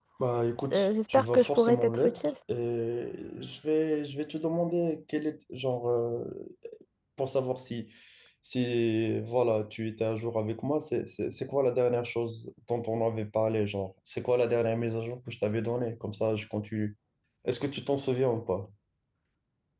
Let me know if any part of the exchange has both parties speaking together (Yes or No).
Yes